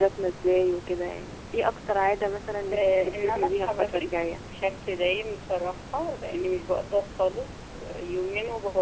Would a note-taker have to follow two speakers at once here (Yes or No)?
Yes